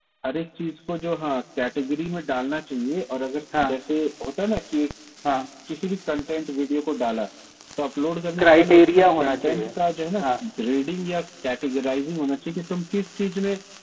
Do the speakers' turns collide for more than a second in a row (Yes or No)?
Yes